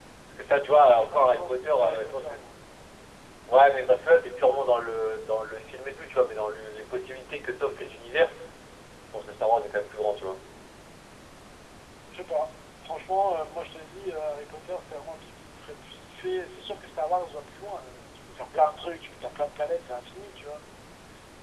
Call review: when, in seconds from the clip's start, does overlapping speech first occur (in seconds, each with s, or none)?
0.7 s